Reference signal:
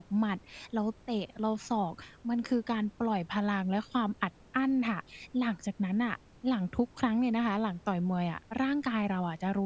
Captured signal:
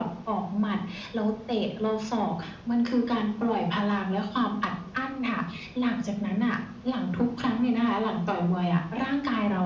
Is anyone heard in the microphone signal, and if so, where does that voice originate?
echo only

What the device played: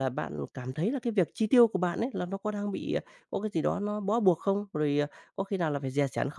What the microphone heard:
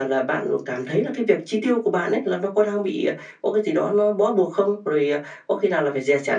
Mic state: echo only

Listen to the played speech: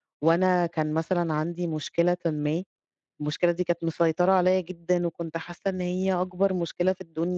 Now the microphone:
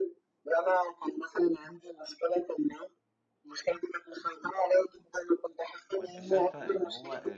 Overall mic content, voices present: both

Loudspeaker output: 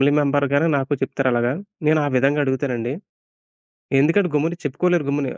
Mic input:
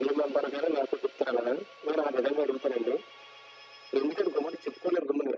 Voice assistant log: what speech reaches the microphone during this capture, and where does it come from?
echo only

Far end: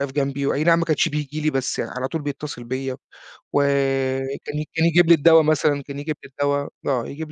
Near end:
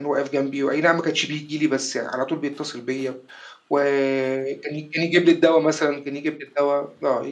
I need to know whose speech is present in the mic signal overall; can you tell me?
echo only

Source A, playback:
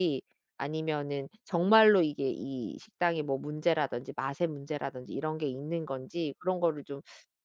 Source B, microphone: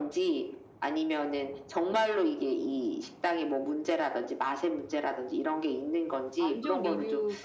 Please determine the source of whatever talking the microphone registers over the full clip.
both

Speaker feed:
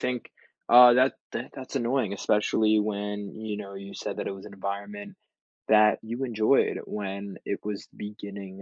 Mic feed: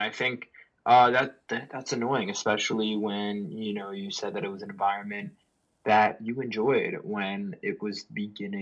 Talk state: echo only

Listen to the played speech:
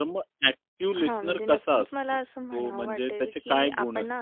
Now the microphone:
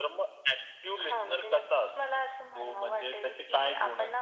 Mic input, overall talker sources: echo only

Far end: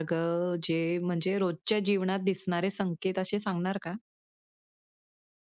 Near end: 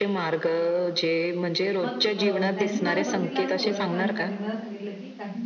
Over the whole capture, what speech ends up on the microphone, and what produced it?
both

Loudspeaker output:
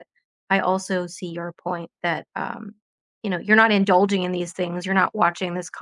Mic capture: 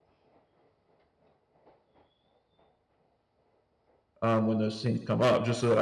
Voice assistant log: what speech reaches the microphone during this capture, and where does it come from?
user only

